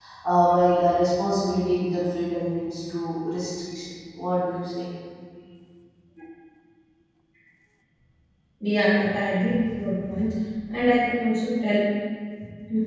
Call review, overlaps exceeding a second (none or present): none